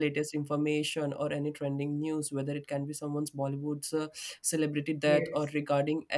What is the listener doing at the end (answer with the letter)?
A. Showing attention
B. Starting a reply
A